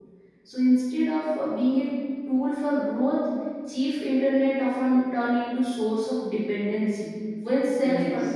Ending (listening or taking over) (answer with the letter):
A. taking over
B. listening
B